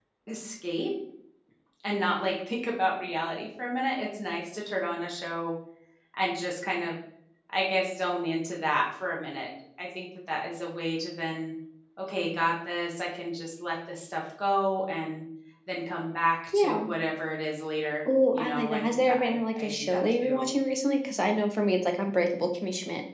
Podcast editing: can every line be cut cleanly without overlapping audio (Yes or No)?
No